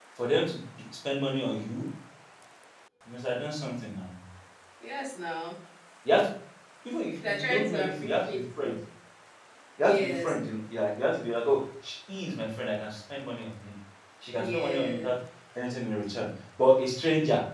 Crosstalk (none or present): present